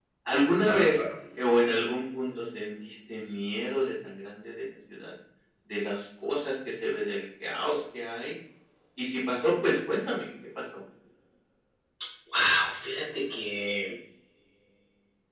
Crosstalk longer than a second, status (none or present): none